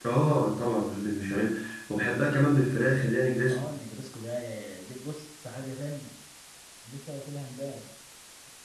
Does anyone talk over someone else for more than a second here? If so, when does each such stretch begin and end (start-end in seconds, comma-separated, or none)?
none